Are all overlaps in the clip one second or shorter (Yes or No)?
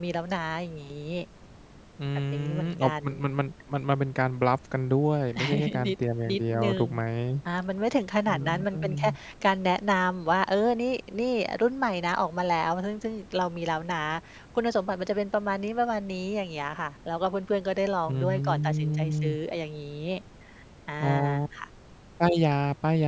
No